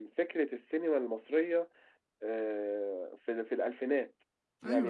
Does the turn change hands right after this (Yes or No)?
No